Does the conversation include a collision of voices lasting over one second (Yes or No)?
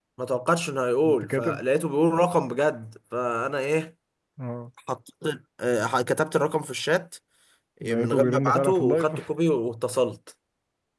Yes